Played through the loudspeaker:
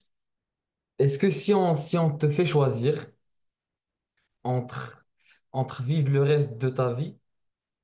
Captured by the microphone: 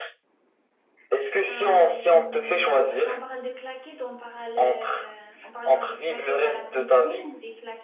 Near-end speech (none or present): present